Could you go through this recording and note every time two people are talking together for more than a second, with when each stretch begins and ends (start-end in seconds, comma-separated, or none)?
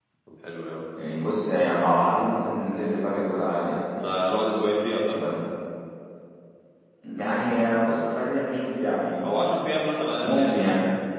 none